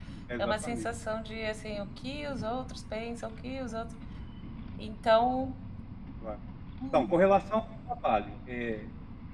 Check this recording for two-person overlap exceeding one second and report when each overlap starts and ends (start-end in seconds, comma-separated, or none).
none